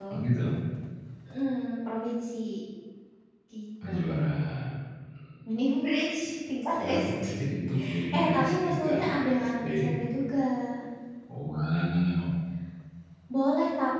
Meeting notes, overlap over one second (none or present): present